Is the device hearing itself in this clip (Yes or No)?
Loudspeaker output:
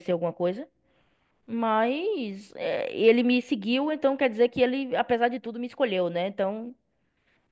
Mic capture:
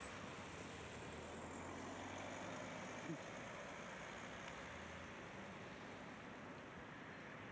No